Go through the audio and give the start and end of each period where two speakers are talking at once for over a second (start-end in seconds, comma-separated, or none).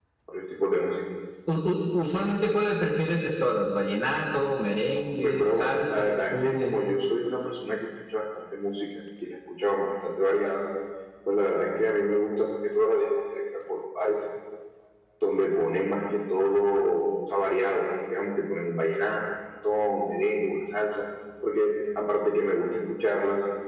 5.2-6.8